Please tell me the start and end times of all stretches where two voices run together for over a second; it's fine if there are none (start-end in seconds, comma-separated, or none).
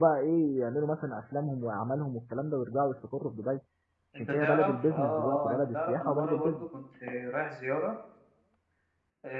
4.2-6.6